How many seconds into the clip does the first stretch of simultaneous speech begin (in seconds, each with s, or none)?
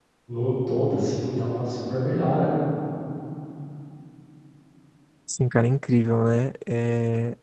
none